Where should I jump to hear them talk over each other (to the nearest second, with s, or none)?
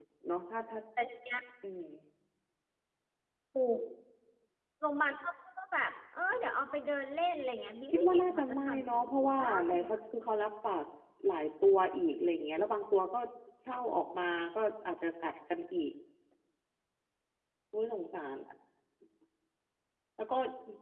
8 s